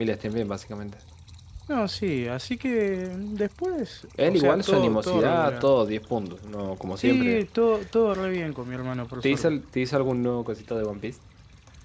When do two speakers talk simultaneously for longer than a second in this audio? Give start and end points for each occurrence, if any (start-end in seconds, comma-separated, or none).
4.2-5.7